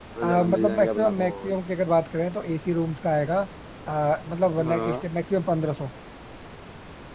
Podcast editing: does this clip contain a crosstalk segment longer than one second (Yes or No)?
Yes